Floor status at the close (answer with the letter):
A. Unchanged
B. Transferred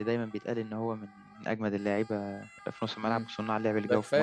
B